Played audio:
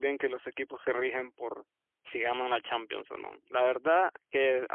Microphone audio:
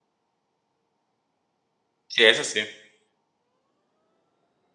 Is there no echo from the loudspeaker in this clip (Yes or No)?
Yes